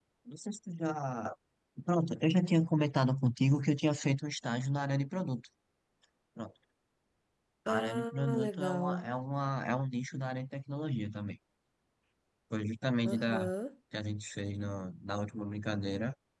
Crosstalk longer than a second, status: present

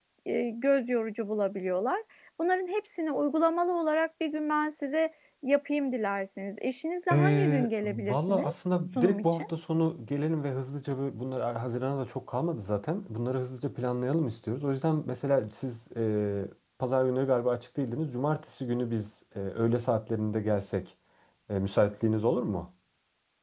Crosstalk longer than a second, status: present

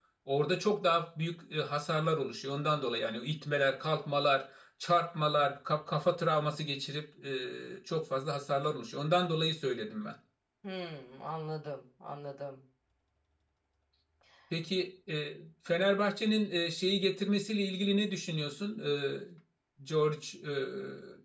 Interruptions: none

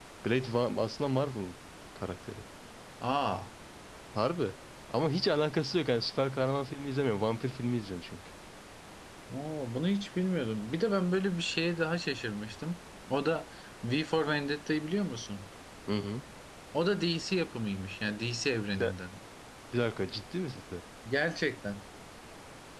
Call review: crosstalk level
none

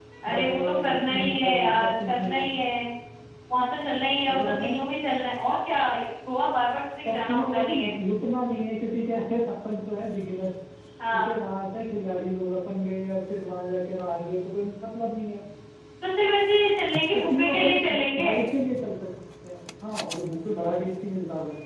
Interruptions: present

